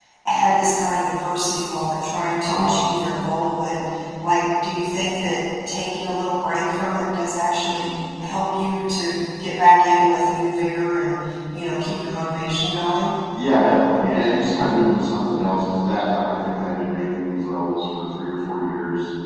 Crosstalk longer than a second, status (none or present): none